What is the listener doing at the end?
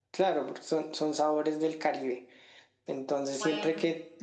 listening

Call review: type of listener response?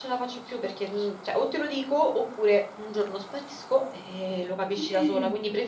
listening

